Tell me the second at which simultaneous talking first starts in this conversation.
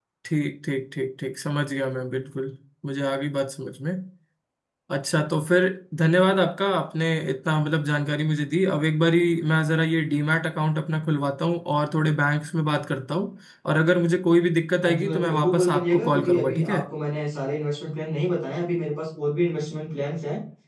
14.8 s

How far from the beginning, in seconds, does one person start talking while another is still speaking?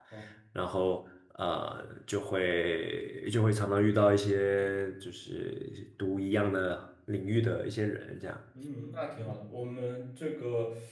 none

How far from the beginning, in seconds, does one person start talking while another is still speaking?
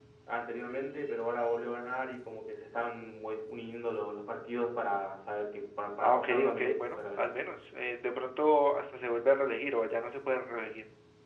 6.0 s

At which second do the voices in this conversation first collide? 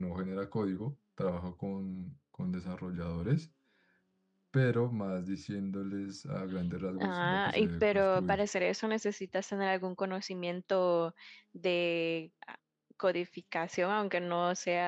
6.9 s

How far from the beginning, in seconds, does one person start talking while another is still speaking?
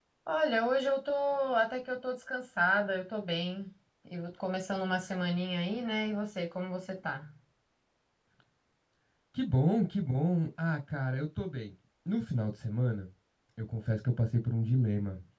none

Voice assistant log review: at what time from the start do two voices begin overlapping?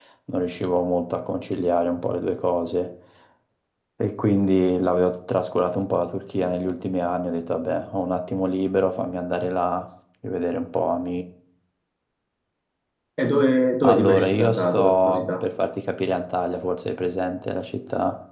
13.8 s

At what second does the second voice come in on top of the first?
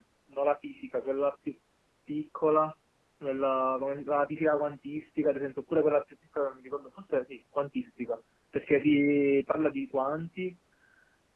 none

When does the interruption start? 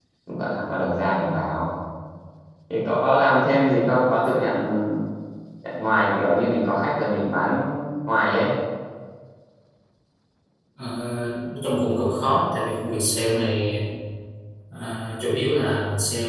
none

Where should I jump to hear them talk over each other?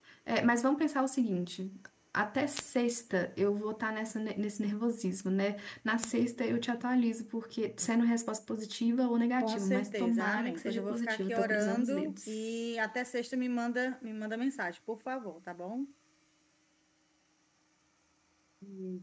9.4 s

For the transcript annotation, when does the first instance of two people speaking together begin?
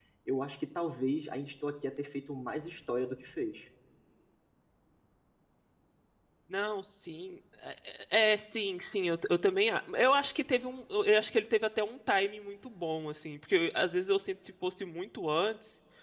none

